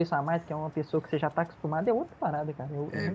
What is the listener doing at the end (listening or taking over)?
taking over